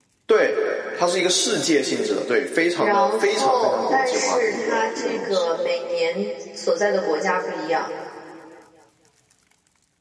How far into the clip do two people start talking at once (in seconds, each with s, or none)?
2.8 s